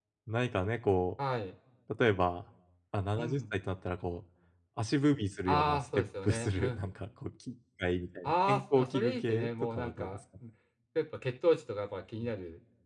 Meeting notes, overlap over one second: present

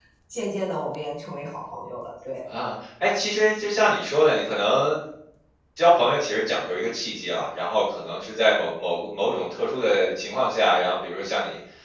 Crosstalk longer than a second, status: none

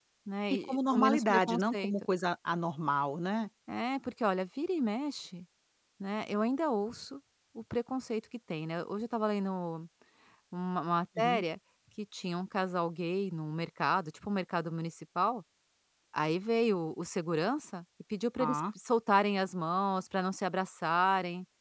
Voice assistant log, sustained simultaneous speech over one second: present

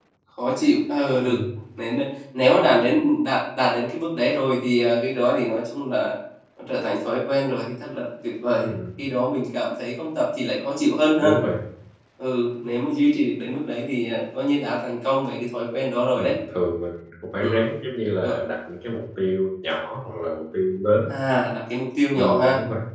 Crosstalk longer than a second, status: none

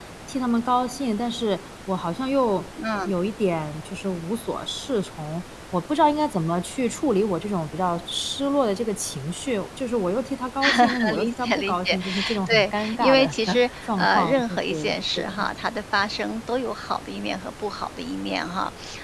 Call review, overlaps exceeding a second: present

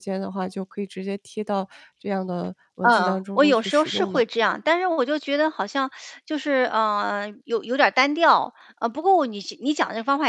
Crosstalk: present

